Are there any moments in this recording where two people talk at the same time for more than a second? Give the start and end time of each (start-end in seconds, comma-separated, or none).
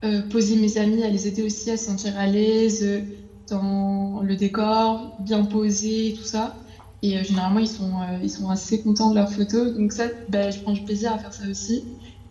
none